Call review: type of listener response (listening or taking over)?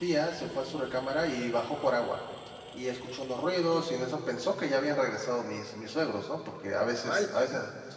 listening